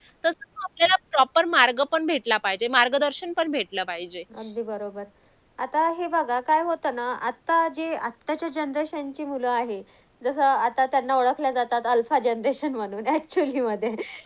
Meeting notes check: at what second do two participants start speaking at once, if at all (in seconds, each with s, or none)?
none